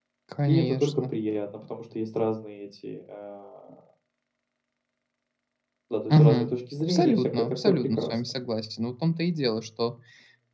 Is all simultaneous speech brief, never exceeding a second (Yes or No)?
No